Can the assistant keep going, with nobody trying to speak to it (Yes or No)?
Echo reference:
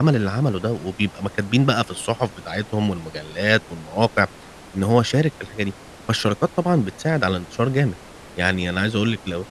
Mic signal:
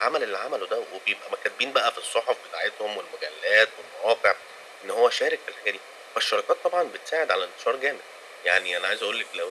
Yes